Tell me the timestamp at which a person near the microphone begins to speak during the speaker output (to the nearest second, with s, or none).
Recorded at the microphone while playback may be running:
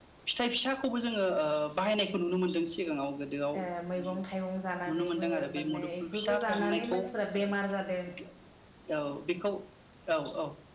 4 s